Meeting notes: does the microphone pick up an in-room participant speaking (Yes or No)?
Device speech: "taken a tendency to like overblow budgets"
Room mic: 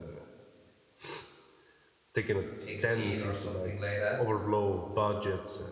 Yes